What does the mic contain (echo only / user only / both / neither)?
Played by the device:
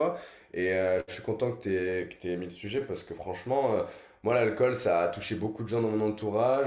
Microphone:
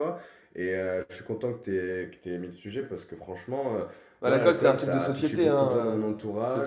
both